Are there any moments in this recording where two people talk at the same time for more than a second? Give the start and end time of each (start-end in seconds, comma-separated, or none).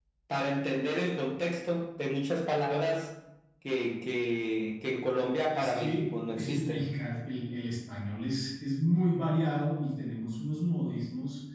5.5-6.9